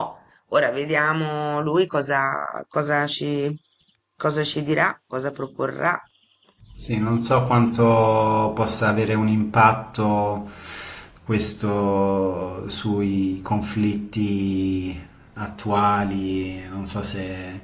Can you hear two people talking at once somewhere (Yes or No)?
No